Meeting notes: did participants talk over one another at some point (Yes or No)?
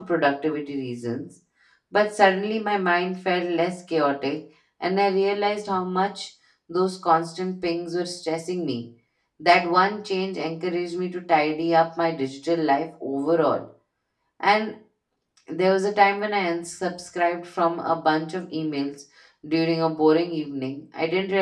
No